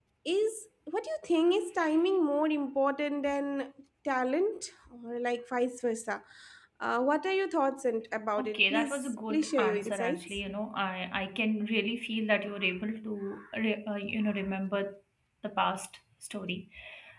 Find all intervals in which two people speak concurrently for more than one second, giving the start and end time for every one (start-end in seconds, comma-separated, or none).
8.4-10.4